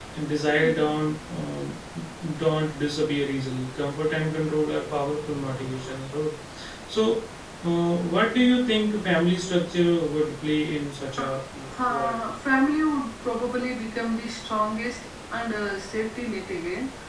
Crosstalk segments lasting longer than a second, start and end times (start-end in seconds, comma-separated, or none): none